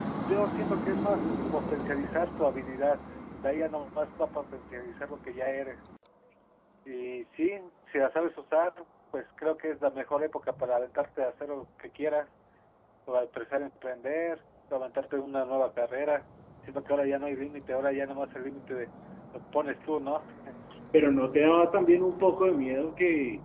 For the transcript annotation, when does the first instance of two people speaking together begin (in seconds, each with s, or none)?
none